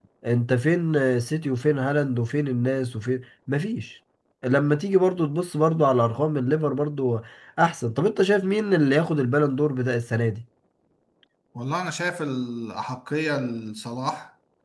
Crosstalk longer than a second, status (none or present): none